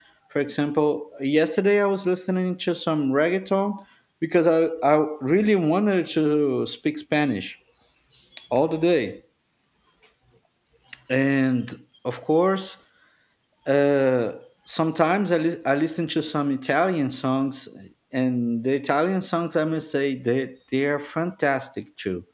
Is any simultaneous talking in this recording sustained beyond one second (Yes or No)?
No